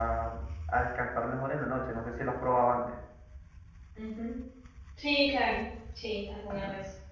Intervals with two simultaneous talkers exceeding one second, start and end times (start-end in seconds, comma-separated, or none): none